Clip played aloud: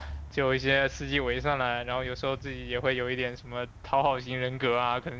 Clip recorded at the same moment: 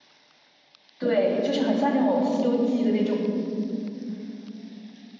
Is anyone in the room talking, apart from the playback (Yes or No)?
Yes